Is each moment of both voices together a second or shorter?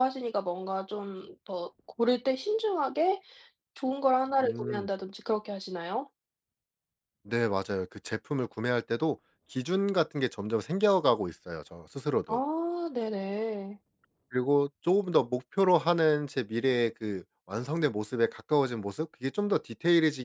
Yes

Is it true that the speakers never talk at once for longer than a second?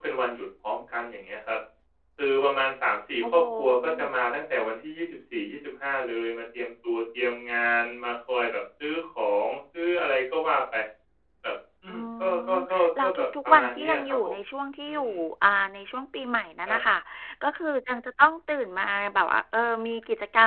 No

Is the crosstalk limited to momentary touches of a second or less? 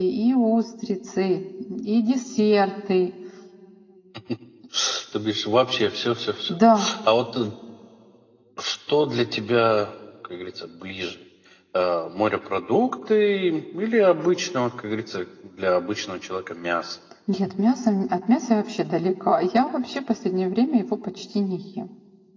Yes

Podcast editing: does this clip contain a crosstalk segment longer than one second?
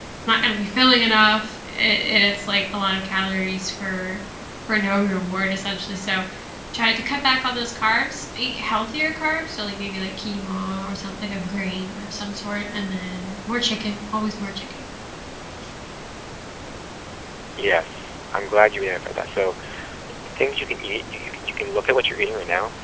No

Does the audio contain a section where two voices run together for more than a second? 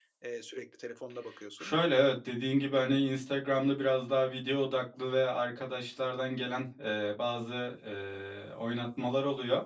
No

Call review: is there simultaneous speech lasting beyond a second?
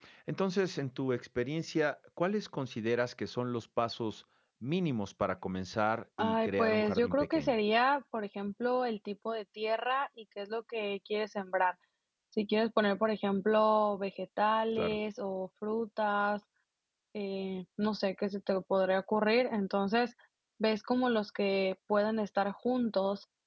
Yes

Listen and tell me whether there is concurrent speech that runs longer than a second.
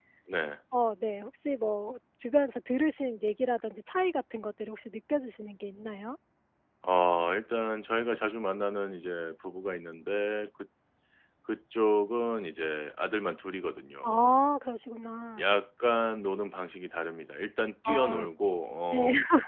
No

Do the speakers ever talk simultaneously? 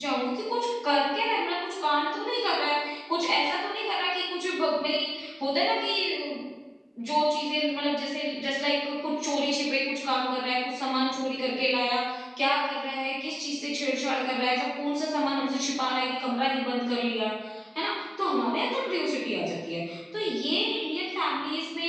No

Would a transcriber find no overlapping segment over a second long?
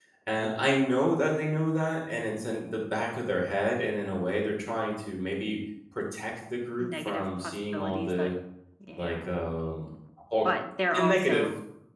No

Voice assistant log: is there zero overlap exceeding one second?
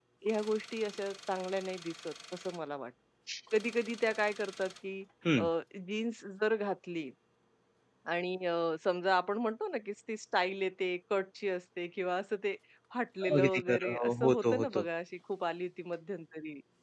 No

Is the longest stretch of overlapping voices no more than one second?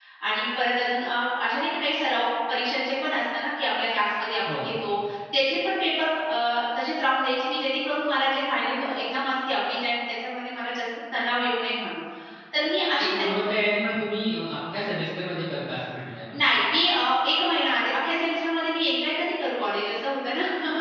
Yes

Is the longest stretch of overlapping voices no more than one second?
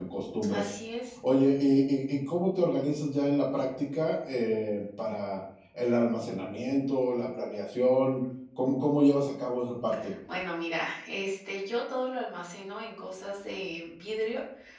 Yes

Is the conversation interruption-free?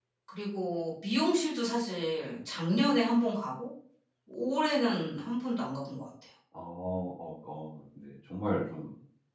Yes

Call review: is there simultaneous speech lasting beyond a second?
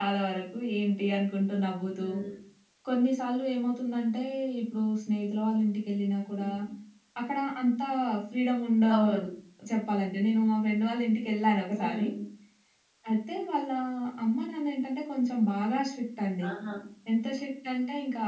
No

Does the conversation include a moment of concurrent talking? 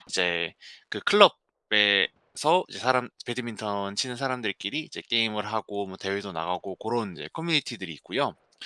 No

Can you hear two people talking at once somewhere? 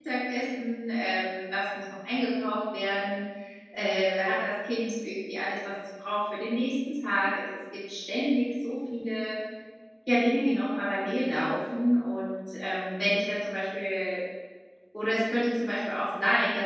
No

